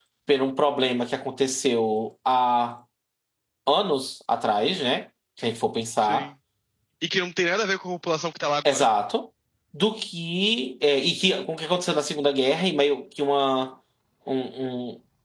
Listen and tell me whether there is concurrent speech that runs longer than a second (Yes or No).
No